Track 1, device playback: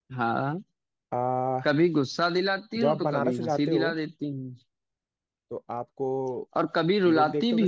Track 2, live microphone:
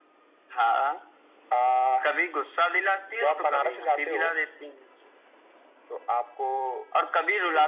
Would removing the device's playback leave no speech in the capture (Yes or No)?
Yes